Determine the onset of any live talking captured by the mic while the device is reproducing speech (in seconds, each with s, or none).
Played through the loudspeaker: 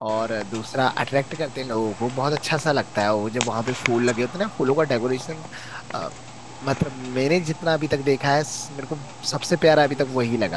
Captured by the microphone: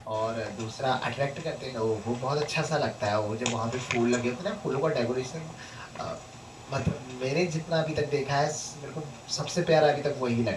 none